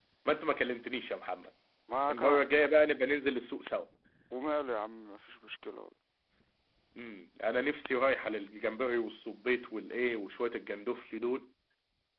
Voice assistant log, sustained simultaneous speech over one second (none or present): none